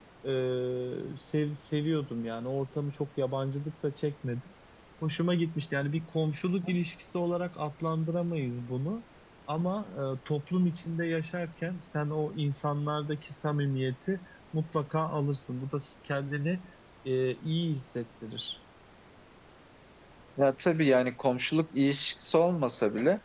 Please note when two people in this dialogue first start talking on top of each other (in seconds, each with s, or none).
none